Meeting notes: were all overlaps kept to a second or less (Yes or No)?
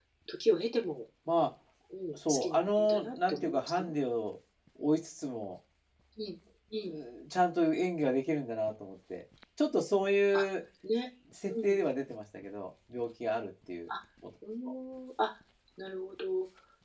No